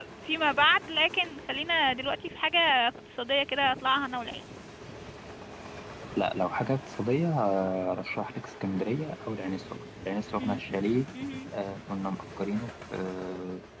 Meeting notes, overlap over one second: none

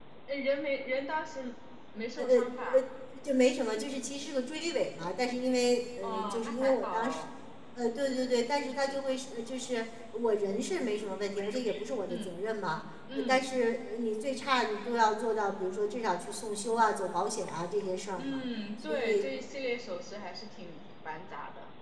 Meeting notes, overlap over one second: present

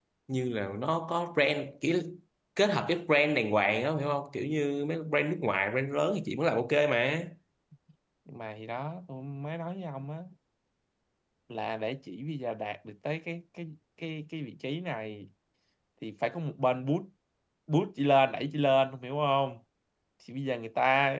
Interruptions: none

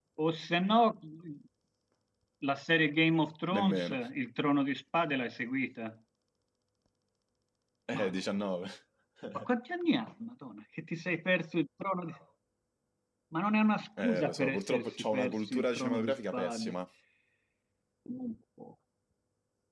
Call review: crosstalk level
present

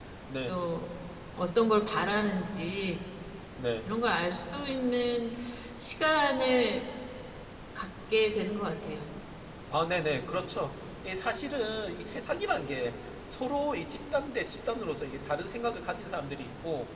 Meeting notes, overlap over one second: none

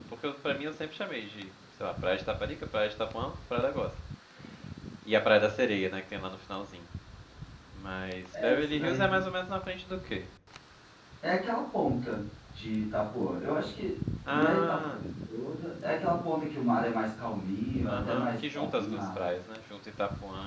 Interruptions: present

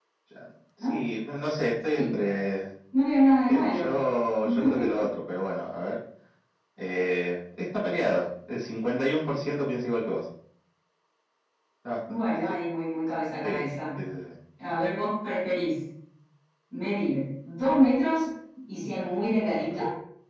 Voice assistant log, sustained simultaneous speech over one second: none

